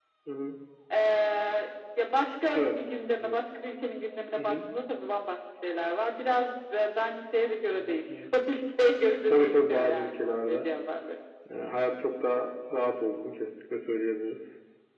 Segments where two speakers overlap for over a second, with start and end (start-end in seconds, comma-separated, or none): 9.3-10.7